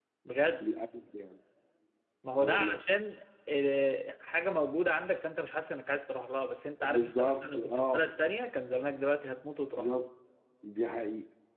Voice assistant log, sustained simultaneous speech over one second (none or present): present